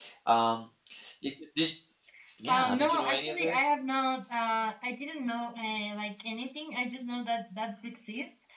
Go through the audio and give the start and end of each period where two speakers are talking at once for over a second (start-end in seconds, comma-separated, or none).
2.5-3.7